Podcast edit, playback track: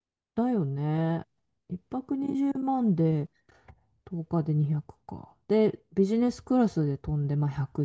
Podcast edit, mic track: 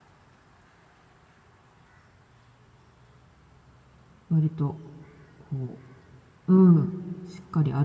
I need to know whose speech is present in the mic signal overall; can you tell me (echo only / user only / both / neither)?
user only